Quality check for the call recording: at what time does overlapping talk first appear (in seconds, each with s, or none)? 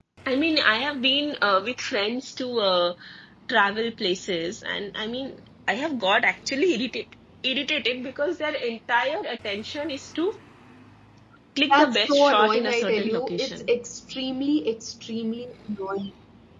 11.7 s